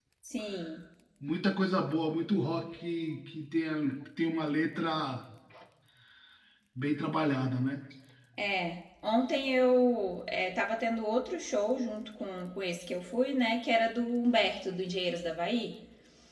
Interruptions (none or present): none